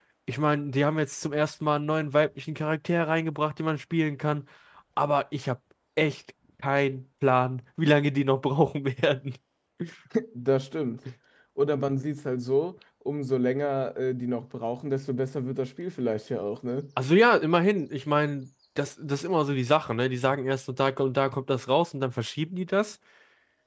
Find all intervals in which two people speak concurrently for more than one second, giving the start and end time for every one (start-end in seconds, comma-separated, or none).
none